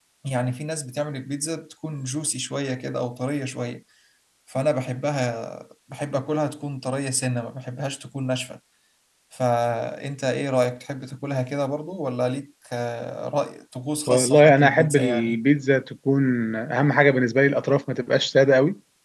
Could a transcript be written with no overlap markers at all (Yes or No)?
No